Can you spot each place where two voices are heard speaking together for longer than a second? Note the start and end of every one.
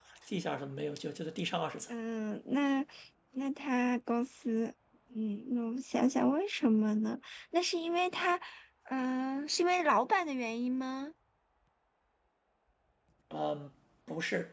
none

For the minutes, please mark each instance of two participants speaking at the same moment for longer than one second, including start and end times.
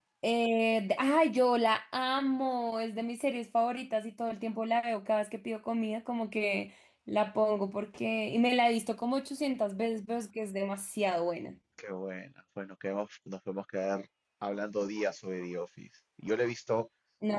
none

